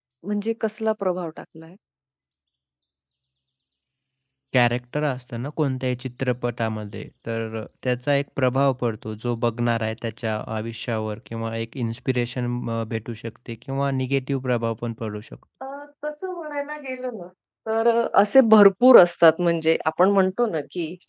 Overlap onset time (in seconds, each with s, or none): none